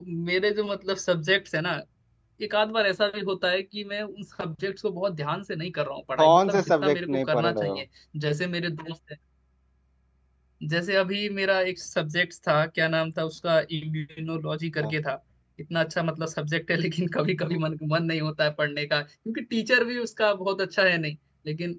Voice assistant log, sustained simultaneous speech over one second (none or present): present